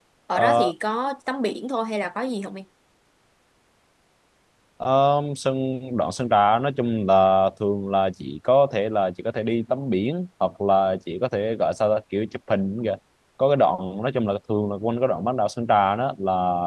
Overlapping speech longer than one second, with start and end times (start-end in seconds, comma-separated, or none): none